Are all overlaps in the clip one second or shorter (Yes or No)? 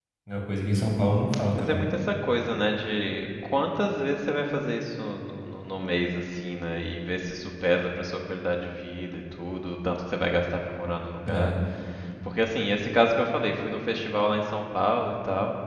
Yes